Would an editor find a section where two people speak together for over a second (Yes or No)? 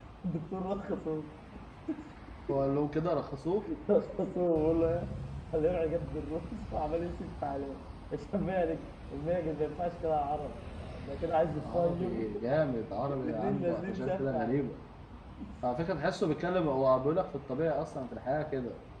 Yes